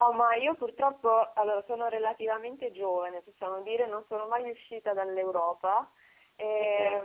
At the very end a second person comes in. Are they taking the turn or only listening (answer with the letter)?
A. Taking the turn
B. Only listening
B